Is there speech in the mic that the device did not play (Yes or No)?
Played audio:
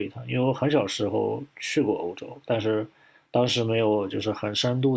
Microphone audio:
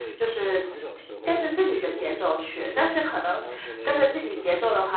Yes